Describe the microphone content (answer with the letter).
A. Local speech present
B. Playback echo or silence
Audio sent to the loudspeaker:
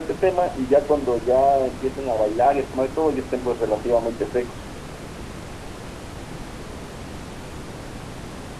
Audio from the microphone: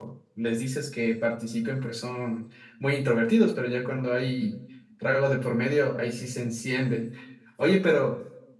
A